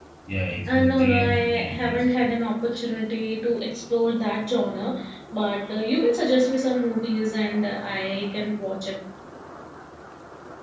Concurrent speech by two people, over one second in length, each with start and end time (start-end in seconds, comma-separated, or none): 0.7-2.3